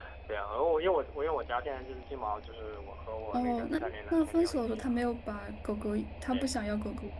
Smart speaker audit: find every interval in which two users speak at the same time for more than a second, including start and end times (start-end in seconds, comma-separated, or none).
3.3-5.0